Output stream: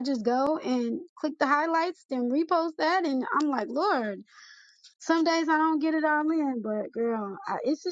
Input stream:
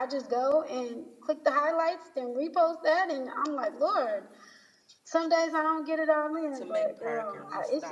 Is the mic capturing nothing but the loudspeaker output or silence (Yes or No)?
No